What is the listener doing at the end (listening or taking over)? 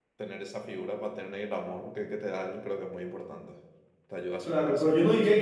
taking over